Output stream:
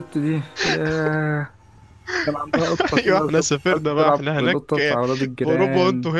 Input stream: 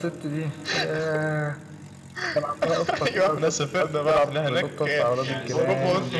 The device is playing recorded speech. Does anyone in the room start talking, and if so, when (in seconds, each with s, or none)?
5.2 s